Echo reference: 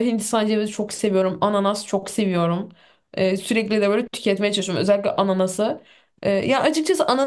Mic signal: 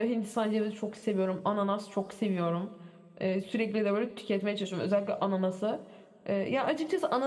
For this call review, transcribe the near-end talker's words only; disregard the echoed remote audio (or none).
none